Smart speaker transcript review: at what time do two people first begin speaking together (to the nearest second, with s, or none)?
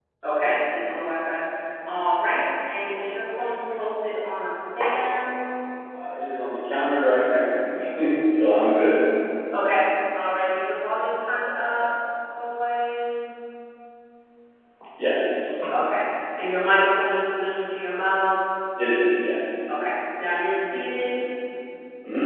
none